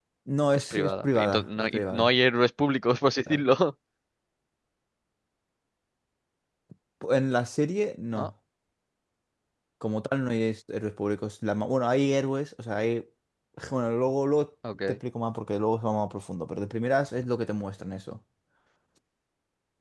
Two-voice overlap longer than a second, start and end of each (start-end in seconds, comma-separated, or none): 0.5-2.1